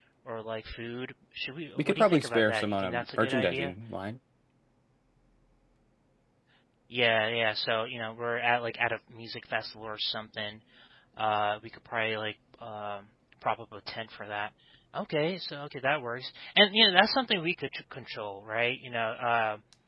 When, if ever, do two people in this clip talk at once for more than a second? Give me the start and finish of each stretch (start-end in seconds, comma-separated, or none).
1.8-3.7